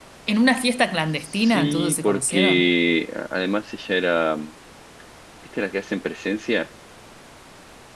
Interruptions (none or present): present